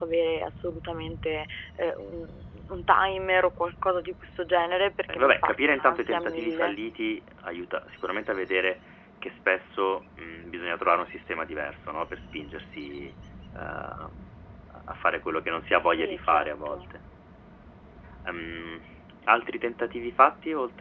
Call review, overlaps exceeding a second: present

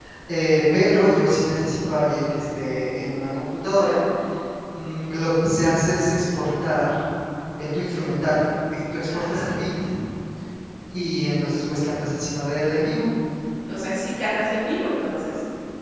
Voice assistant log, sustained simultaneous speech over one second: none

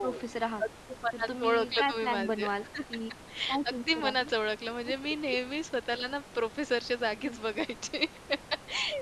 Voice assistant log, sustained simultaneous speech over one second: present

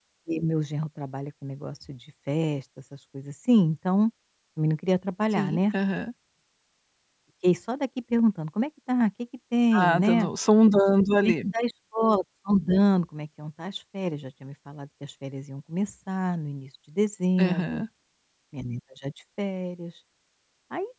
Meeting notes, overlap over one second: none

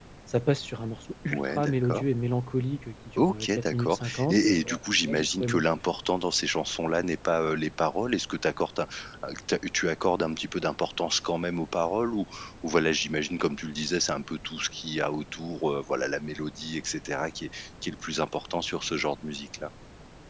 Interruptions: present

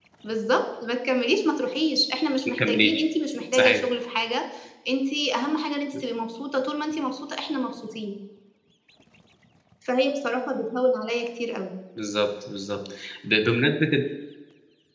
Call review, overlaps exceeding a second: none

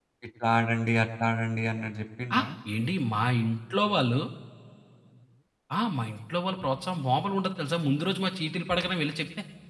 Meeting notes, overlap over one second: none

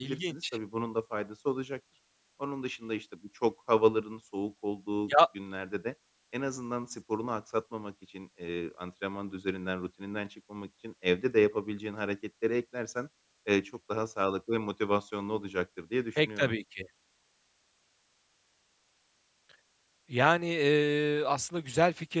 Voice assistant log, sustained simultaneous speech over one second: none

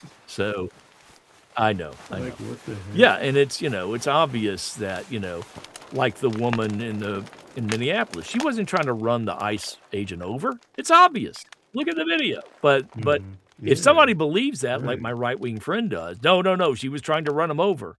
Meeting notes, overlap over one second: none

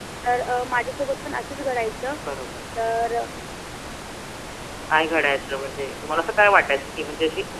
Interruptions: none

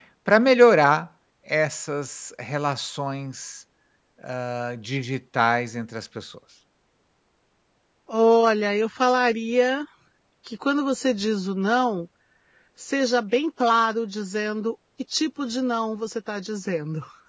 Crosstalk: none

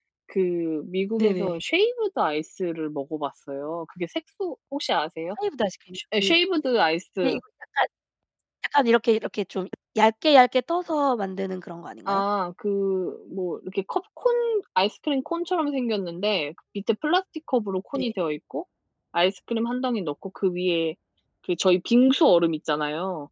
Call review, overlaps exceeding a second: none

